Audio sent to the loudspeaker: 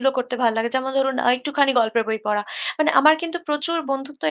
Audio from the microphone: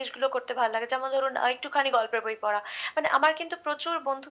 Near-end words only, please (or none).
none